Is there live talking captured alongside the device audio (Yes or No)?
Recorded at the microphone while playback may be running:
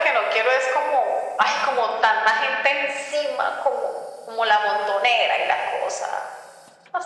No